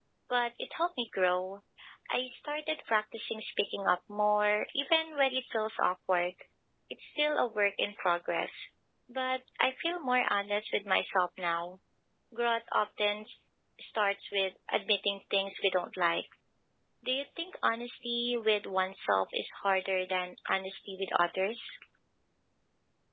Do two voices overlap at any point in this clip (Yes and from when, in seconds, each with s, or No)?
No